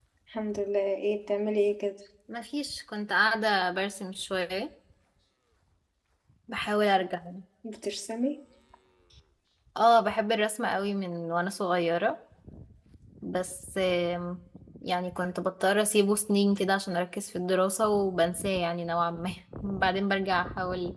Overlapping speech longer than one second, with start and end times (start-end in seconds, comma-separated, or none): none